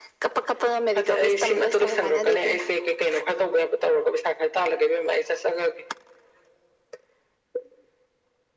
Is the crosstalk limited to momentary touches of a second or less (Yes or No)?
No